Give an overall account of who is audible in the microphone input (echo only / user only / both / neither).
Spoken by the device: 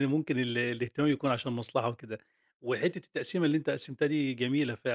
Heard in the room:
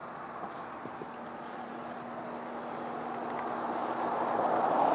neither